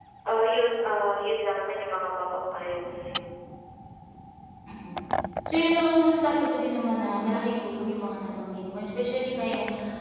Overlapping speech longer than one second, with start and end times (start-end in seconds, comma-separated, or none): none